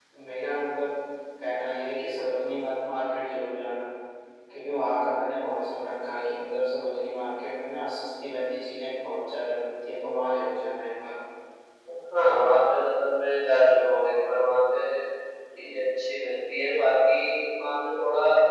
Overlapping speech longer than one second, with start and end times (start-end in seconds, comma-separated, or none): none